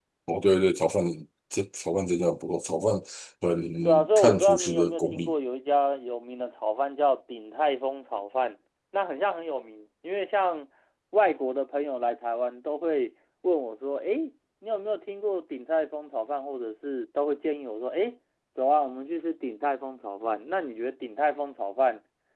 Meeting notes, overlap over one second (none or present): present